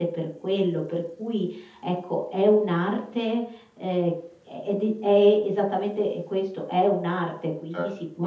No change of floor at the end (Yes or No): No